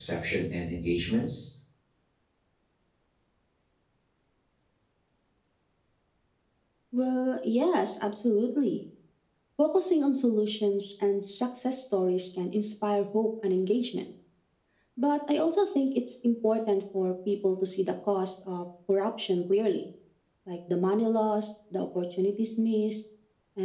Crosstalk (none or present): none